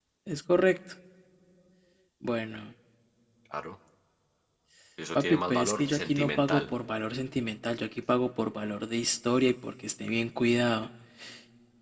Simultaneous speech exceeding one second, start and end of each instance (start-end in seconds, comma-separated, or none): 5.2-6.6